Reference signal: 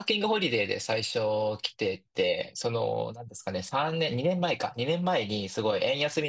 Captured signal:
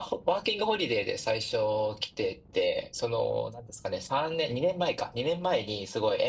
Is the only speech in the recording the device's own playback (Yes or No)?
Yes